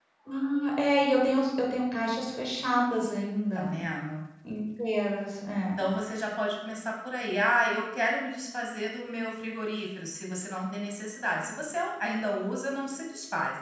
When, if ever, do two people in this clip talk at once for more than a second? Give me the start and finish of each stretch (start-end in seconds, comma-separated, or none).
none